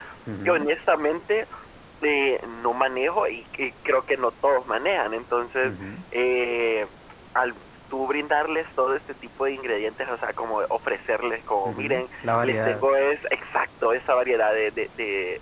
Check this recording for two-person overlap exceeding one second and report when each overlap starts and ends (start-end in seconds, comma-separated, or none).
11.7-12.8